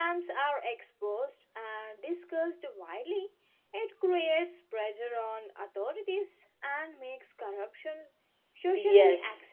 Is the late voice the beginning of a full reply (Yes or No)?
Yes